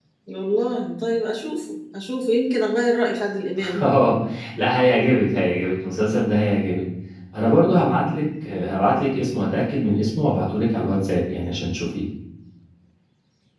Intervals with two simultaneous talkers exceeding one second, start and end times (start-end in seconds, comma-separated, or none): none